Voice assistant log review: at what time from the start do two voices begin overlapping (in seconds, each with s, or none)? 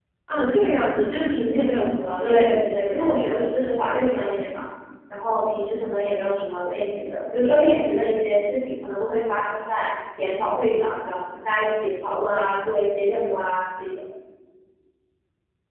2.2 s